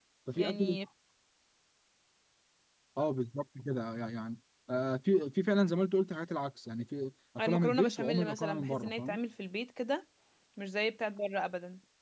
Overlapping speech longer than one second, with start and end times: 7.4-9.2

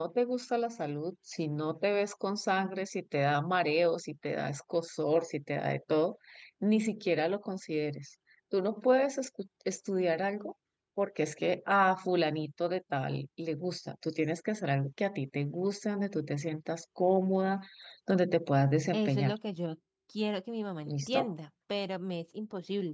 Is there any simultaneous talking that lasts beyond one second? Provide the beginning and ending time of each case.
none

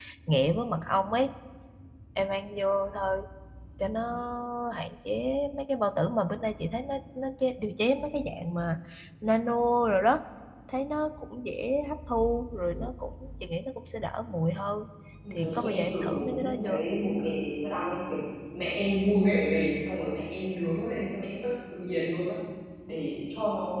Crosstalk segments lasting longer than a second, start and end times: 15.3-16.8

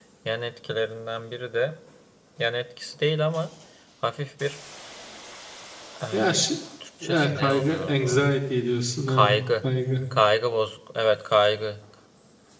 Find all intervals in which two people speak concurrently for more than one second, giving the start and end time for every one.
7.0-8.3

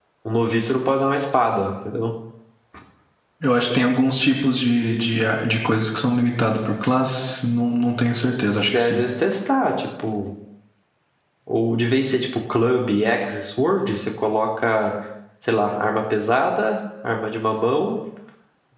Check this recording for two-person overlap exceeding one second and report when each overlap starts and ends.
none

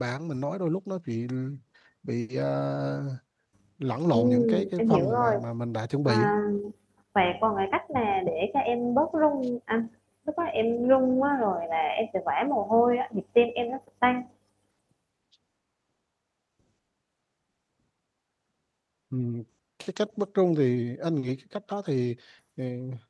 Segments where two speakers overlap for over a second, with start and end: 4.1-5.3

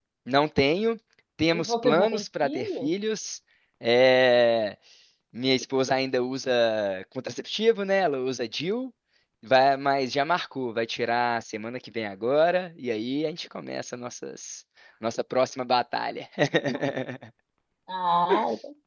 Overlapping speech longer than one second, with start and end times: 1.5-2.9

